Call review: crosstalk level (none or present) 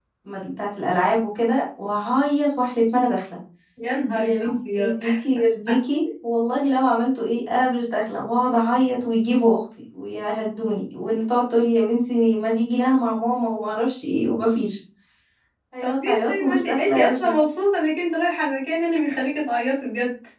present